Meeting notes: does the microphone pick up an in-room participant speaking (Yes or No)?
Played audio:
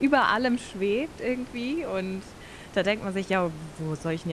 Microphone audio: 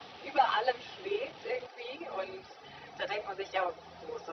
No